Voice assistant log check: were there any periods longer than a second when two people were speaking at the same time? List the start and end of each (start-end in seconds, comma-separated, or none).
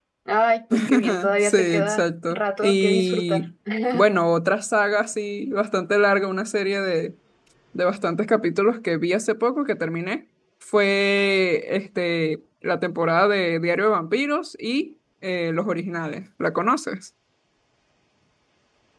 0.7-3.5